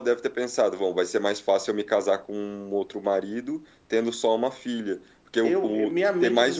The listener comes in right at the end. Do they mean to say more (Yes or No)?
Yes